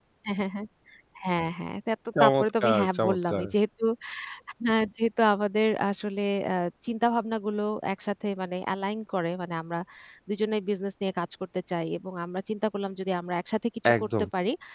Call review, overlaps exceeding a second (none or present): present